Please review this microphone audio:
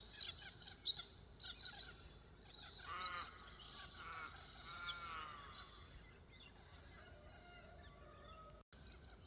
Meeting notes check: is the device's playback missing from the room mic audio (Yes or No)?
Yes